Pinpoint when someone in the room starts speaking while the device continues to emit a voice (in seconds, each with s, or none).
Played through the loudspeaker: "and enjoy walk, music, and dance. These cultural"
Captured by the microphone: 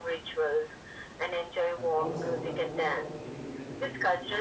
1.7 s